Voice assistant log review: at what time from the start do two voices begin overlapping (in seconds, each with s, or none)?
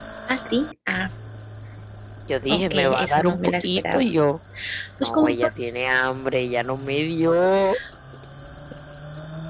2.5 s